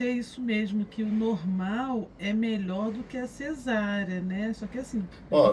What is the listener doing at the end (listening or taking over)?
taking over